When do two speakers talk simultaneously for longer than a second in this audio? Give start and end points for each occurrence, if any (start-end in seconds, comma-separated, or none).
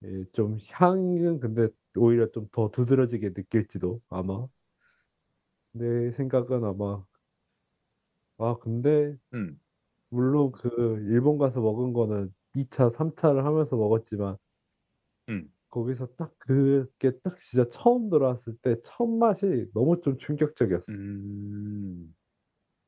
none